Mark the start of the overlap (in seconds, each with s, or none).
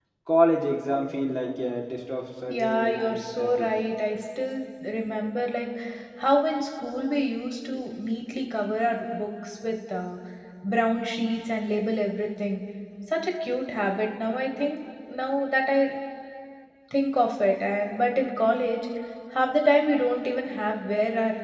2.5 s